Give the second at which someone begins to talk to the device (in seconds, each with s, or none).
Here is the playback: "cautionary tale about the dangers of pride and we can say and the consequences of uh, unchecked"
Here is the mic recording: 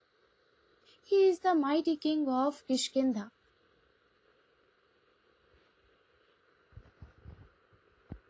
1.0 s